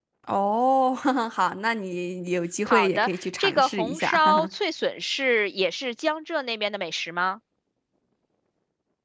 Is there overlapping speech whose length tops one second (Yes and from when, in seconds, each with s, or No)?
Yes, from 2.7 s